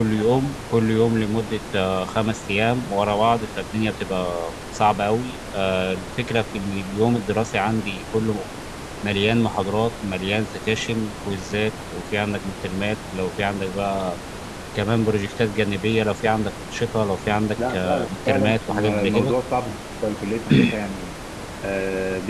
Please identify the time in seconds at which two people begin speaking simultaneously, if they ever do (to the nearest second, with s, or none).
18 s